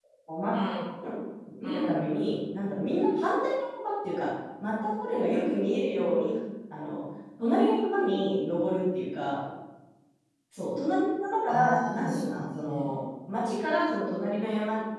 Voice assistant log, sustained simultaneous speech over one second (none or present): present